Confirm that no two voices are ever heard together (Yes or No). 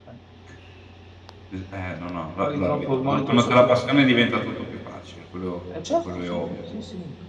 No